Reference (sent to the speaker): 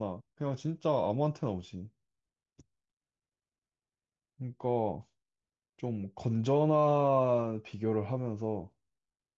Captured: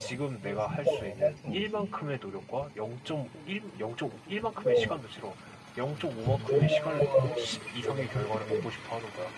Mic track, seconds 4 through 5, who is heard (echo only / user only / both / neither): both